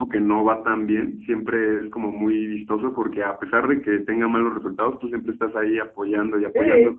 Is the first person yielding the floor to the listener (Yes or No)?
No